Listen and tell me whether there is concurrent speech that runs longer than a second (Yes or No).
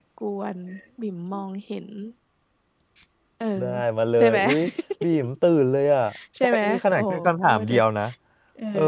Yes